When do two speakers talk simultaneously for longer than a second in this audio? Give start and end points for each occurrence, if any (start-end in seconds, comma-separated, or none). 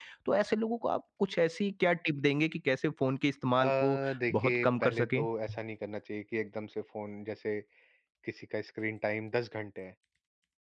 3.6-5.2